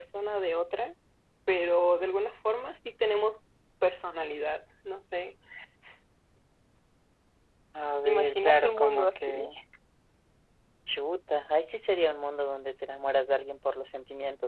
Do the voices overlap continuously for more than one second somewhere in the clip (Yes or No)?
Yes